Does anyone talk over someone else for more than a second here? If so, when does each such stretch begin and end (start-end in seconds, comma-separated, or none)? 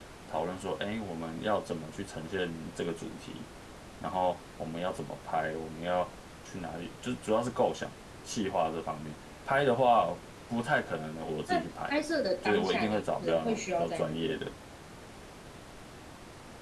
12.4-14.5